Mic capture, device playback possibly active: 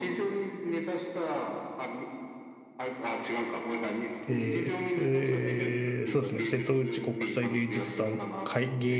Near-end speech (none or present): present